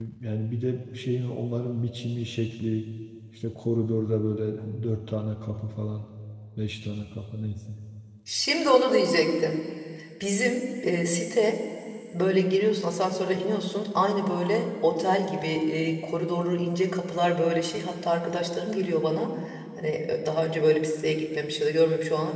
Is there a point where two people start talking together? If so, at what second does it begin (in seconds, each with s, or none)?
none